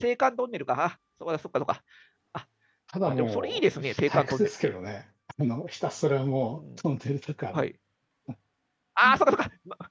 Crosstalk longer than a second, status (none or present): present